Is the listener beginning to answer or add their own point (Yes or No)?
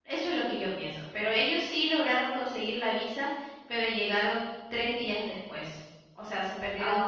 Yes